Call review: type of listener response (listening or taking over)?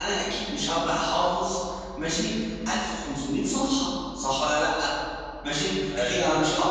listening